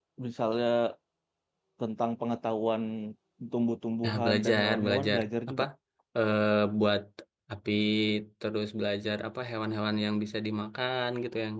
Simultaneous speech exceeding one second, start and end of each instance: 4.0-5.6

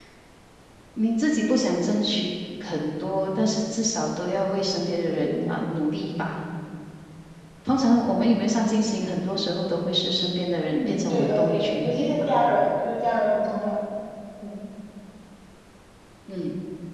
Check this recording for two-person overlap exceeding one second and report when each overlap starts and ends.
10.6-12.3

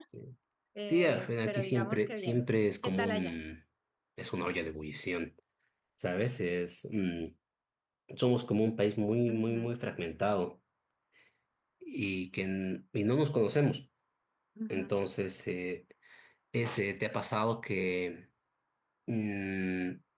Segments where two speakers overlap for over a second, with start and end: 0.9-2.4

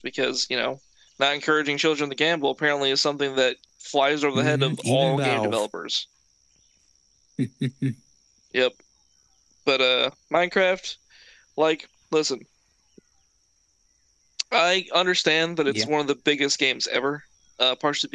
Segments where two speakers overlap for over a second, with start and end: 4.3-5.7

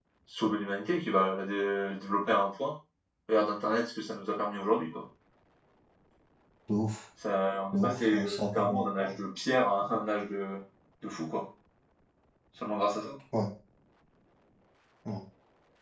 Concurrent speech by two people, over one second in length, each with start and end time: 7.7-9.1

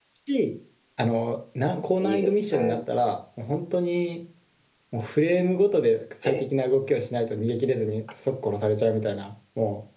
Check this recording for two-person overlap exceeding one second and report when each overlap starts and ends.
1.6-2.8

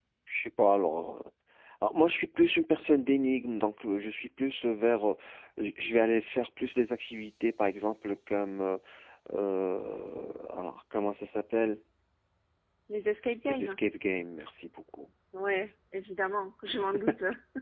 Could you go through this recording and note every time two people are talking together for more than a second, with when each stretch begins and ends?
none

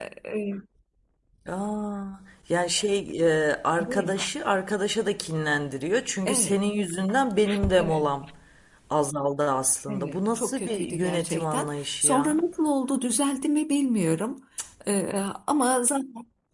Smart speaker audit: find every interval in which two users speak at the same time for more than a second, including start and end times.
9.9-12.4

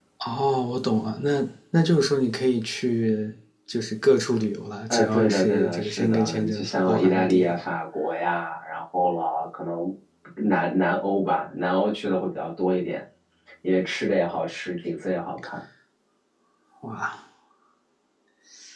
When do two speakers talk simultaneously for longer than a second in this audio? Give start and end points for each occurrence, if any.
4.9-7.5

